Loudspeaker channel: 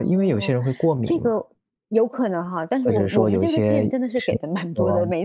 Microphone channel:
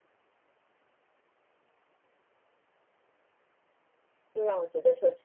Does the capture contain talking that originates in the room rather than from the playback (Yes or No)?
Yes